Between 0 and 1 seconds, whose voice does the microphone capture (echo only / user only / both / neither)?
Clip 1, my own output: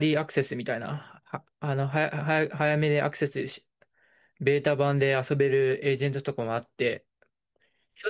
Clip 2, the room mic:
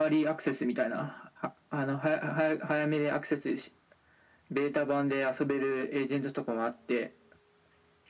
echo only